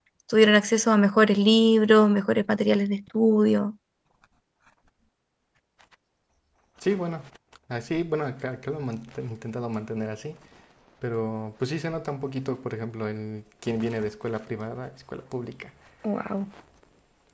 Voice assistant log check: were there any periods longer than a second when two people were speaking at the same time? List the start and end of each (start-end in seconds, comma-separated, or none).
none